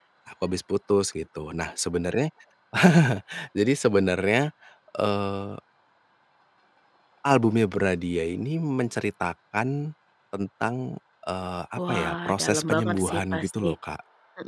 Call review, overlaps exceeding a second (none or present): present